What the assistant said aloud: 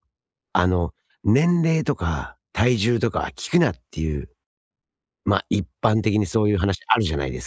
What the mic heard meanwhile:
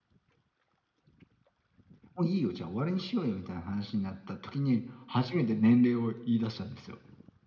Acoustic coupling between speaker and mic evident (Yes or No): No